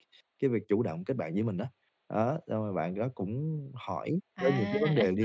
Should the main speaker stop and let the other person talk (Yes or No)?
No